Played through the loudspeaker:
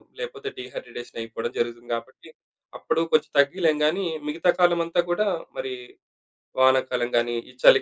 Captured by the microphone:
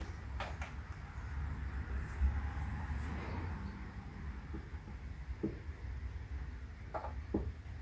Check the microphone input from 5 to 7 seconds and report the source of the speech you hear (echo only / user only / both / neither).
neither